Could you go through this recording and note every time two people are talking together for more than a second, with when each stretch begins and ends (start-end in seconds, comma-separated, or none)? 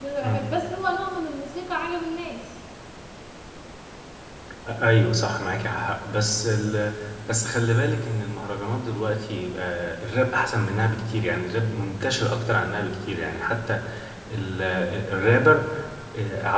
none